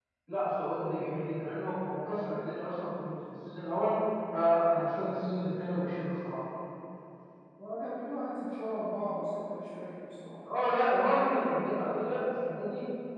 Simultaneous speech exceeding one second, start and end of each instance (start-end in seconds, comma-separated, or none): none